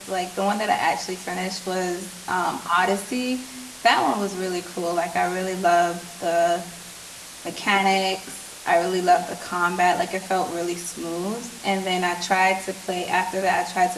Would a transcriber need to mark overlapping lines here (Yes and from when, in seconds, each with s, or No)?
No